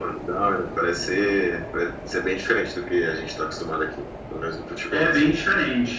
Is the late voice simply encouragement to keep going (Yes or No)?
No